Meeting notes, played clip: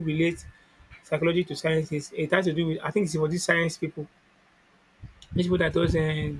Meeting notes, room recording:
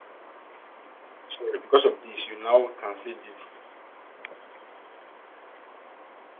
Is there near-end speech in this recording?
Yes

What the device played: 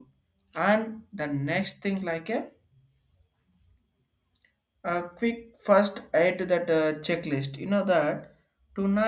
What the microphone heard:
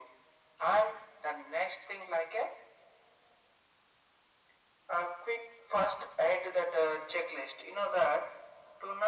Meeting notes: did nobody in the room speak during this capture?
Yes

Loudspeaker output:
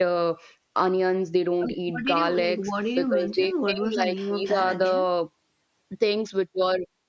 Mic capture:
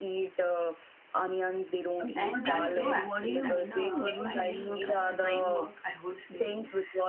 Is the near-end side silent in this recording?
No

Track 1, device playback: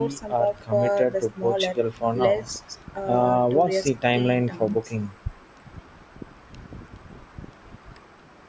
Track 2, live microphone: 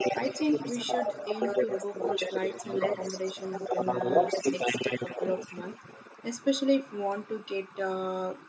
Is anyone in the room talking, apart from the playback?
Yes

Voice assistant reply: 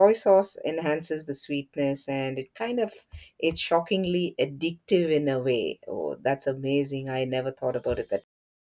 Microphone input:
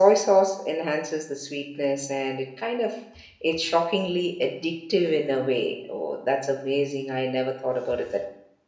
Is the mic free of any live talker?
Yes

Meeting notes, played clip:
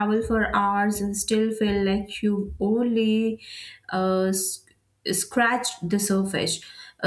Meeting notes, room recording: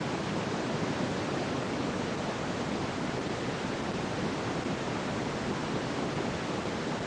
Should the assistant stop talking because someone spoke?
No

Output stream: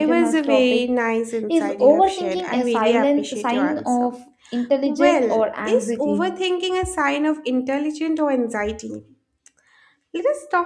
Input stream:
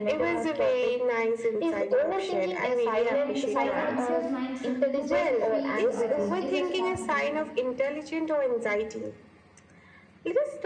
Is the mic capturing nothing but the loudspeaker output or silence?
No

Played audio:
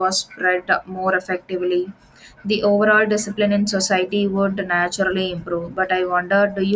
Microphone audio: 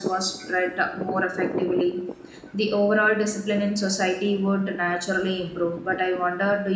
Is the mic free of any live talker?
Yes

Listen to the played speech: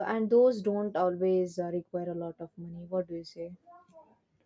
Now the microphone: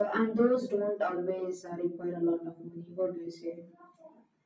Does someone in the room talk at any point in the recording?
No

